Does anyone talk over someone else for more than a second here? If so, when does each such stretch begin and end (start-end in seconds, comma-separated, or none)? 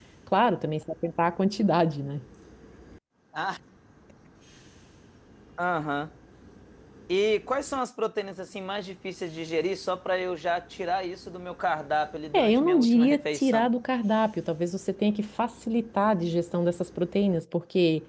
12.3-13.7